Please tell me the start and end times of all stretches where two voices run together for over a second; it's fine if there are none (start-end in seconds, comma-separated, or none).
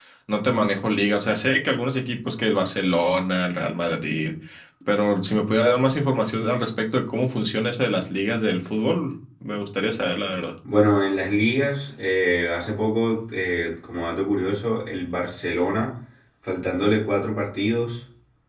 none